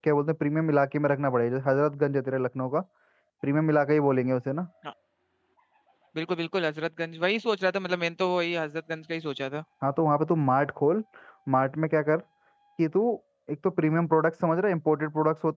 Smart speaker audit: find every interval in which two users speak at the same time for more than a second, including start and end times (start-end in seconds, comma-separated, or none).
none